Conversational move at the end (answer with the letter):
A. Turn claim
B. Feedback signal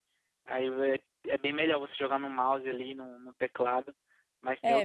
A